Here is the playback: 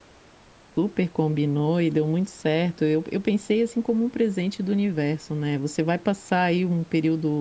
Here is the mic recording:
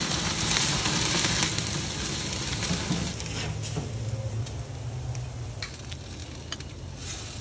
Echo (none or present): none